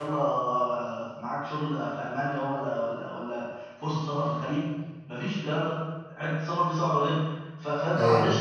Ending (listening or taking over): listening